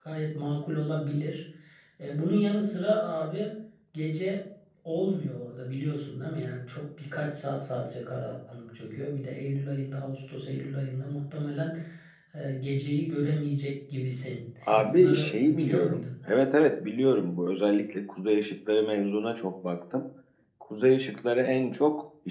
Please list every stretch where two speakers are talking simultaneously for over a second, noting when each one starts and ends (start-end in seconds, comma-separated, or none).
14.7-16.0